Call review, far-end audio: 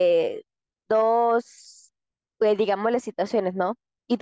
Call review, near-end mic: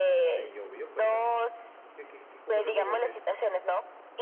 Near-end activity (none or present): present